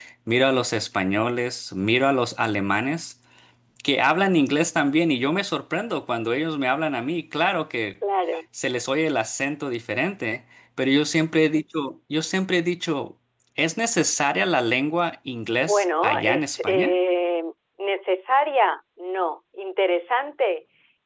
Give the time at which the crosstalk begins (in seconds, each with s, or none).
15.6 s